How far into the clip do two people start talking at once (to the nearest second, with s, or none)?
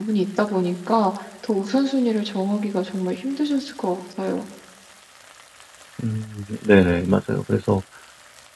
none